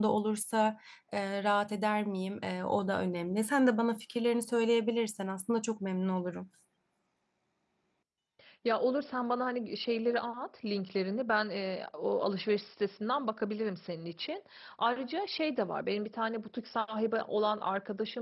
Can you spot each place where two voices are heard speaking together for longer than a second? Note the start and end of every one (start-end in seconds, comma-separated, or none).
none